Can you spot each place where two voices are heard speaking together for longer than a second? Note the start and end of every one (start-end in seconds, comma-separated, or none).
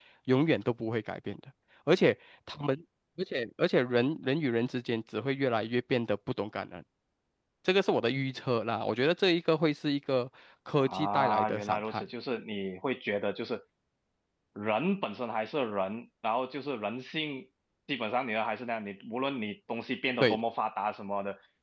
10.8-12.0